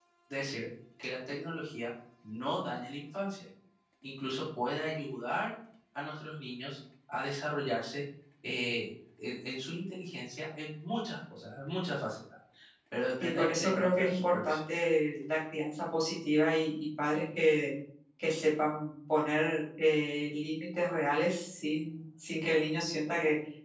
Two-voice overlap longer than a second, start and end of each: 13.2-14.6

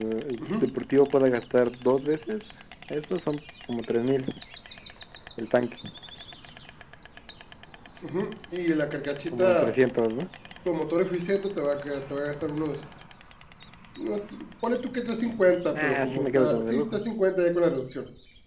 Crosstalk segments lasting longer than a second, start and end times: 15.7-17.0

